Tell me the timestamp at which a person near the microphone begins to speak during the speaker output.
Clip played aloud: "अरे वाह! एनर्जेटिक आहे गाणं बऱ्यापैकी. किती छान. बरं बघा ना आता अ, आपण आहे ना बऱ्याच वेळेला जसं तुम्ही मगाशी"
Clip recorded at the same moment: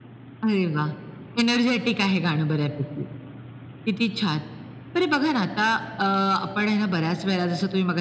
none

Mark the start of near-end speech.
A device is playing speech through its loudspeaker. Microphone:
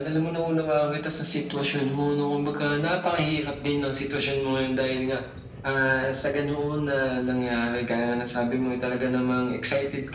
none

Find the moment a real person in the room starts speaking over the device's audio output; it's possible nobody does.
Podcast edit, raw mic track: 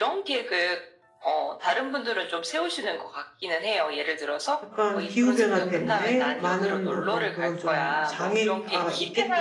4.6 s

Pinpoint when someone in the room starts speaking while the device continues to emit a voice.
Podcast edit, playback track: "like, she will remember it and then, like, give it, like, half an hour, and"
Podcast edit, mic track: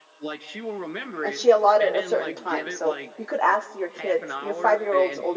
1.2 s

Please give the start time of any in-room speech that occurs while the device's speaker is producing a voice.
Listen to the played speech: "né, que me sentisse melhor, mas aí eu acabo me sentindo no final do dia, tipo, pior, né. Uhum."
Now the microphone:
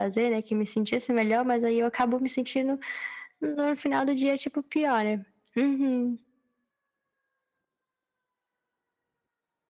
none

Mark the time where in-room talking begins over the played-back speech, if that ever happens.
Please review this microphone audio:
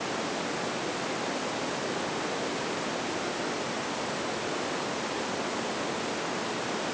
none

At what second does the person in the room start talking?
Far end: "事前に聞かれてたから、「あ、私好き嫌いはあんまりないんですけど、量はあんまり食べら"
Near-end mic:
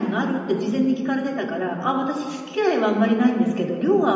none

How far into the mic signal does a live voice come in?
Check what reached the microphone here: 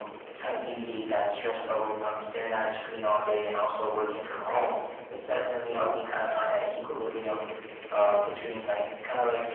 none

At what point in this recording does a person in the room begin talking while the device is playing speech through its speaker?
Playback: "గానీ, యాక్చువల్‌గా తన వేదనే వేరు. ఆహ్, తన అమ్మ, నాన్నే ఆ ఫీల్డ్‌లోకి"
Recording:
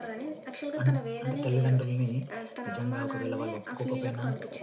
0.8 s

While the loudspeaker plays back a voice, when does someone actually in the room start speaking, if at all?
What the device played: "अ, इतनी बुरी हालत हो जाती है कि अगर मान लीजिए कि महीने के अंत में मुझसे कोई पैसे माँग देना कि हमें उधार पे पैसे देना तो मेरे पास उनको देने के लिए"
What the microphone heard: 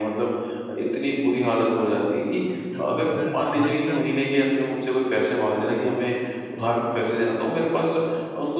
2.7 s

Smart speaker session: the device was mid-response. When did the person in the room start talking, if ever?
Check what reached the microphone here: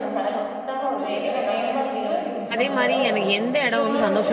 2.5 s

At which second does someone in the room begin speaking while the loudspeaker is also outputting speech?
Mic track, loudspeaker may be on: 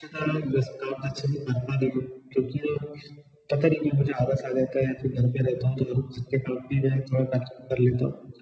none

